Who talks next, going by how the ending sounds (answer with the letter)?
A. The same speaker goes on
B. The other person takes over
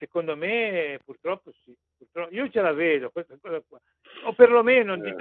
A